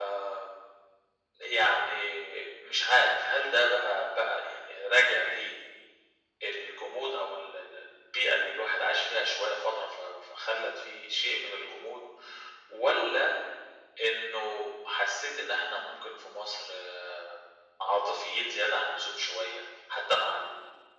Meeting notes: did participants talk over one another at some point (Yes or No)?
No